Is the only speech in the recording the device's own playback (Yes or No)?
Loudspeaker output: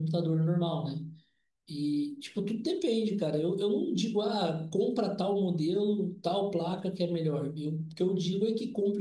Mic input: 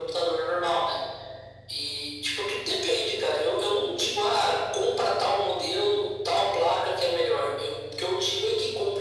Yes